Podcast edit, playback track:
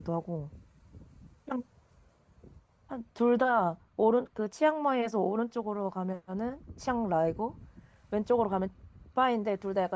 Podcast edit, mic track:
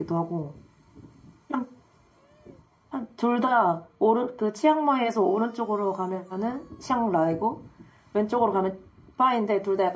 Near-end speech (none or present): none